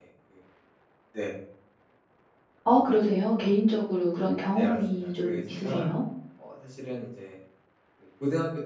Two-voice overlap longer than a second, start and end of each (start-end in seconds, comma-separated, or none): 4.5-5.8